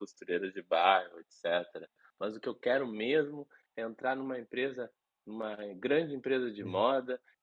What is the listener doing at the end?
listening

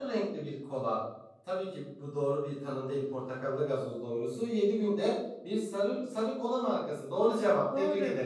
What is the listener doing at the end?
taking over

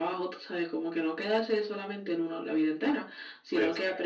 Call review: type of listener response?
listening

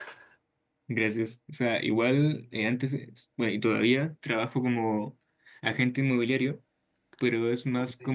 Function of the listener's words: listening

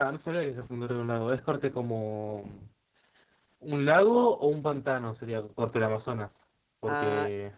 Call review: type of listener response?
taking over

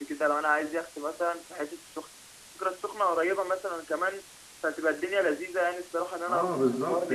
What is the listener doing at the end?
taking over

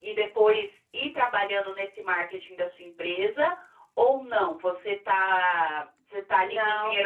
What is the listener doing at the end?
listening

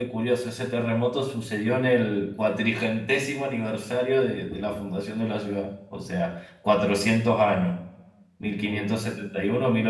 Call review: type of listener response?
listening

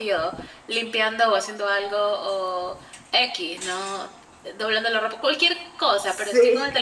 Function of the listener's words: listening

